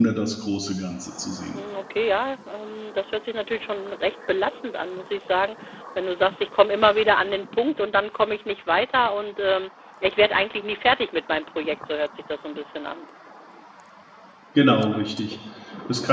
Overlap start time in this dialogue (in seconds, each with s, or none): none